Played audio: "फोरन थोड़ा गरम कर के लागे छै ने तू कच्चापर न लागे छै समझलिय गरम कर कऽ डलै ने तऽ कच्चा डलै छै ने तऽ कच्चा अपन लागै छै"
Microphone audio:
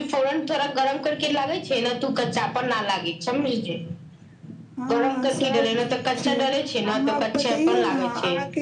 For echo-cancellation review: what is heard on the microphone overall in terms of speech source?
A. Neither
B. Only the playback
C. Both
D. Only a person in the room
C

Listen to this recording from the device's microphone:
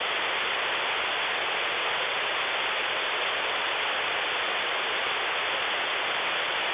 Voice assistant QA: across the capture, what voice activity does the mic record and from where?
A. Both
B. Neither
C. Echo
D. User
B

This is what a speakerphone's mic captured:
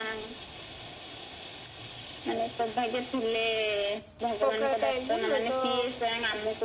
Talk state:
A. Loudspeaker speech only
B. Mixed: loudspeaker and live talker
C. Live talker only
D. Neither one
B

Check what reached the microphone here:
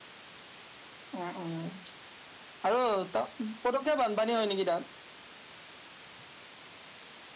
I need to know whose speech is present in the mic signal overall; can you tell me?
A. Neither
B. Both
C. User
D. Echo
D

